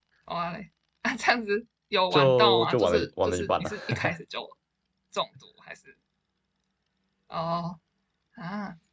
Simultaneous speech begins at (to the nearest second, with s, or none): 2 s